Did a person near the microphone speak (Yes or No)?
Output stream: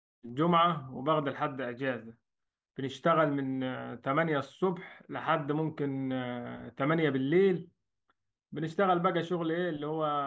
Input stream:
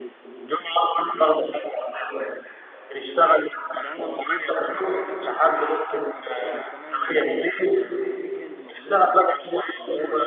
Yes